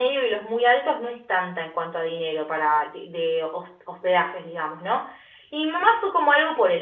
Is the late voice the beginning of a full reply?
No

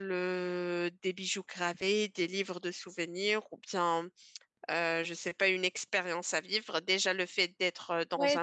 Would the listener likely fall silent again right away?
No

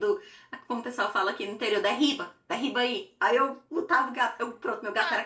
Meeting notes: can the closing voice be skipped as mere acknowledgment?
No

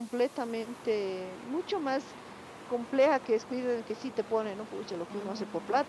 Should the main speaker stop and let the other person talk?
No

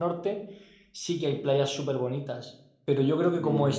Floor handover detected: No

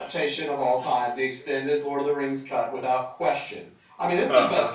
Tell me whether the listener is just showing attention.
Yes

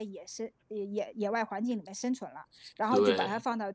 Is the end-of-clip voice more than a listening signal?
No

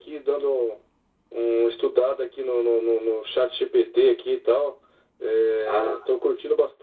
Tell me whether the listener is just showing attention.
Yes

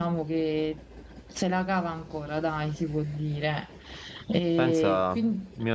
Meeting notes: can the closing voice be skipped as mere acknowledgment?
No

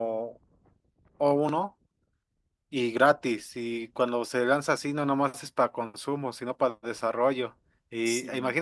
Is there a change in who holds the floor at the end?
No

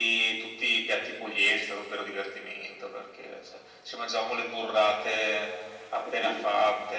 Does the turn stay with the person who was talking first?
Yes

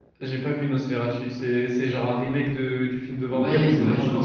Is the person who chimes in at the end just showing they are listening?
No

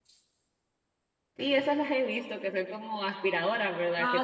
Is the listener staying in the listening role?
No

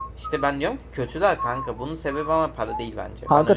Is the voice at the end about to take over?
Yes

